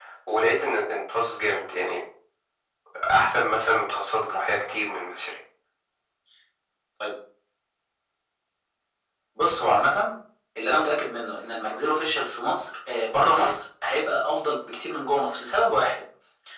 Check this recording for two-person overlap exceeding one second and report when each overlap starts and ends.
none

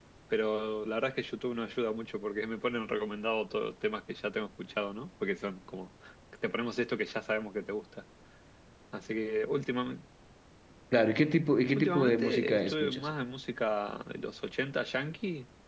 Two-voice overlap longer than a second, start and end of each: 11.8-13.0

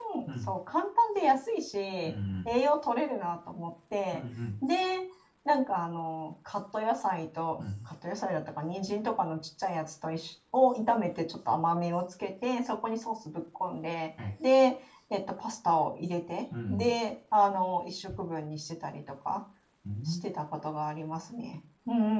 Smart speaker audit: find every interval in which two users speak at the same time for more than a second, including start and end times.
none

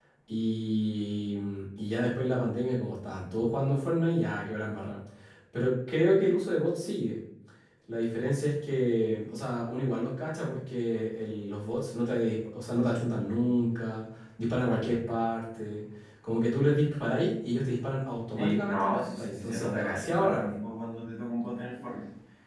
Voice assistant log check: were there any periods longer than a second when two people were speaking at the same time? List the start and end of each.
18.4-20.5

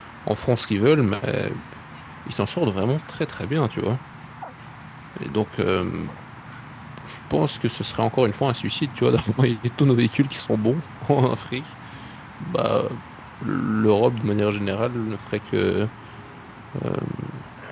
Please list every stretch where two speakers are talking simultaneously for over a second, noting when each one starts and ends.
none

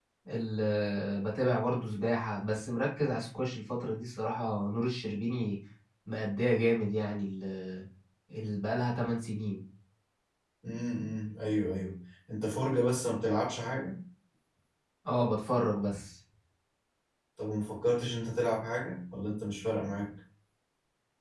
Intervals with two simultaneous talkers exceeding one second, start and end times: none

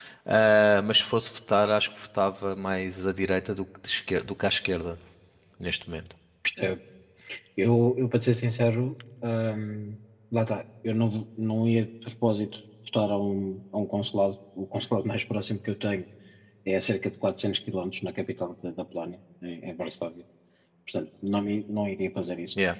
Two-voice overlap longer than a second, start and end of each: none

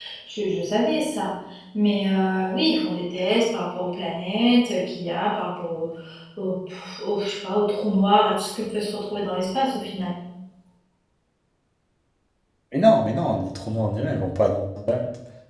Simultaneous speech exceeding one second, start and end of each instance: none

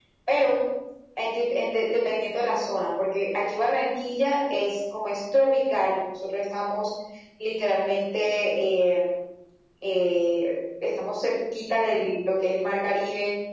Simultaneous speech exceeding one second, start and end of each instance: none

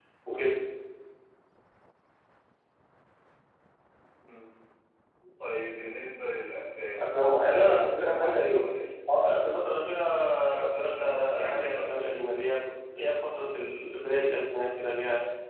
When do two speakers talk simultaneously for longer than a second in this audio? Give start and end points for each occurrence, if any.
7.0-8.6, 10.7-11.9

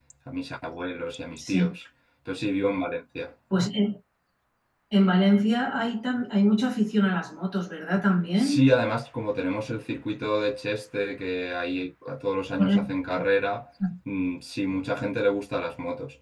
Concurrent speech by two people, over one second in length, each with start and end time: none

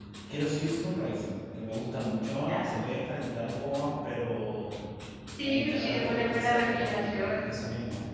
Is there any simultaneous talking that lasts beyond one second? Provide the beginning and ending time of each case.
5.4-7.5

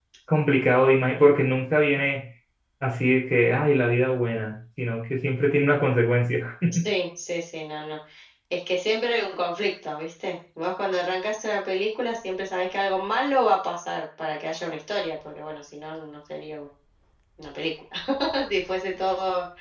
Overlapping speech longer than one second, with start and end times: none

